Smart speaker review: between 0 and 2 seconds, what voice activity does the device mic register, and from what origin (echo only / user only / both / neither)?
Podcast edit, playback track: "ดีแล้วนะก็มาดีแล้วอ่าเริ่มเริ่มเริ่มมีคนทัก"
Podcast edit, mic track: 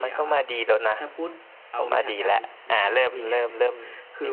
both